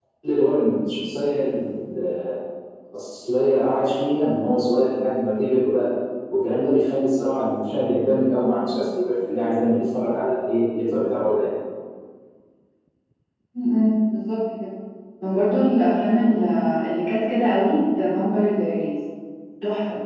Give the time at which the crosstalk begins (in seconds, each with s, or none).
none